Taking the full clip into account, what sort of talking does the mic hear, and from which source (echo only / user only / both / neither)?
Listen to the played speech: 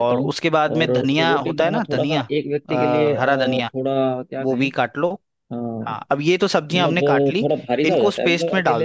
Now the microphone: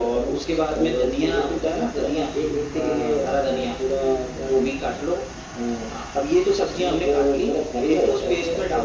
echo only